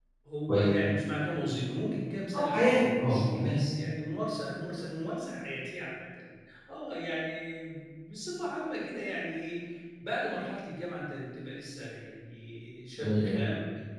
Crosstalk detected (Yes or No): Yes